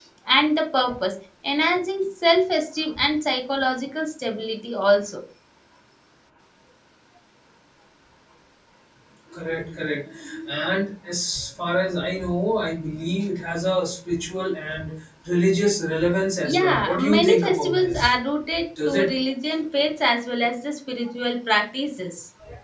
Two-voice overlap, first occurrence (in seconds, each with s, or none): 16.4 s